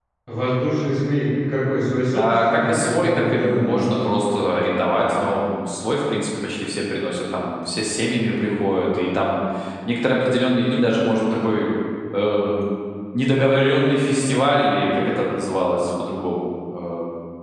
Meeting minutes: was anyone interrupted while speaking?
Yes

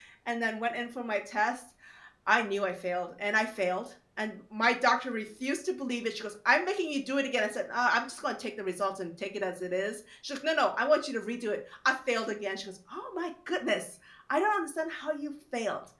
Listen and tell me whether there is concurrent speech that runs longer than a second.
No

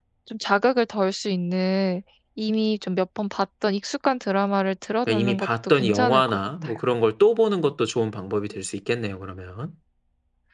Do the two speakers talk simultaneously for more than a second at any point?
Yes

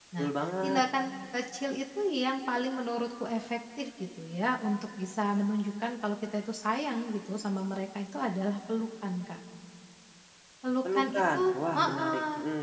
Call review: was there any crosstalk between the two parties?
Yes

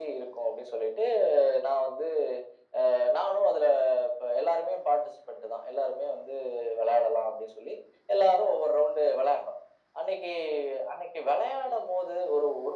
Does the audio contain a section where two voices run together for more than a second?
No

